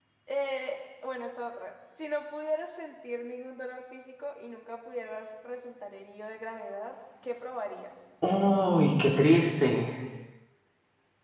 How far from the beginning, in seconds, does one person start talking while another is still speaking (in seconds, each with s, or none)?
none